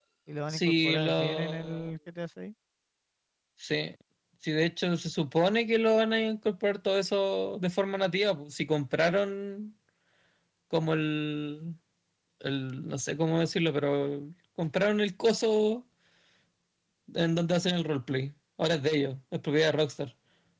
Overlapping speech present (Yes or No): Yes